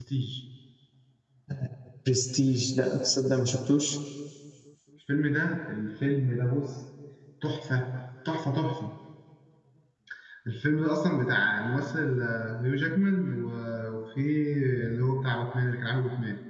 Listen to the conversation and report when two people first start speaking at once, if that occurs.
none

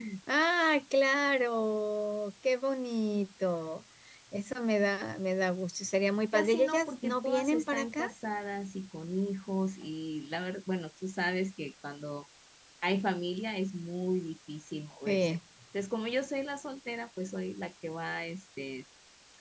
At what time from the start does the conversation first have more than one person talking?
6.3 s

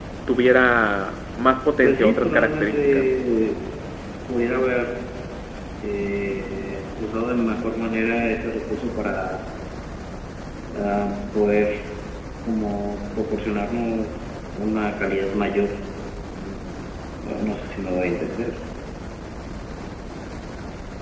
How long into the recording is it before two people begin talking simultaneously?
1.8 s

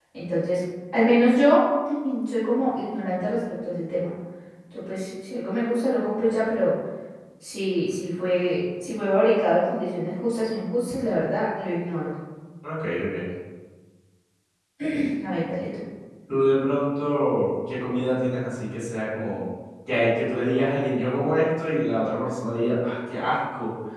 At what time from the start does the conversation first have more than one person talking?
none

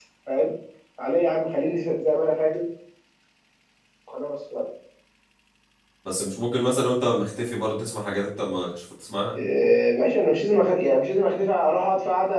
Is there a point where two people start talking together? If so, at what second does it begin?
none

